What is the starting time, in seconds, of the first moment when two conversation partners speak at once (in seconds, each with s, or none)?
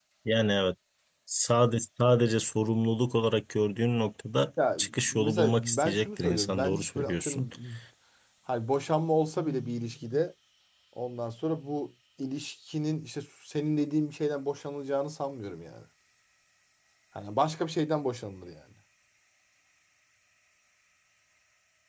4.6 s